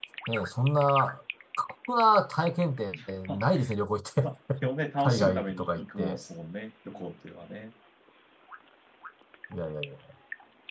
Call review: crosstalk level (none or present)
present